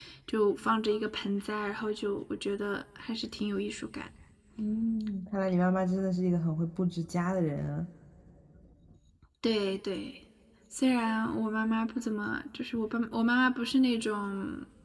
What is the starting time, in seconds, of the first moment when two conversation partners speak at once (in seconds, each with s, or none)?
none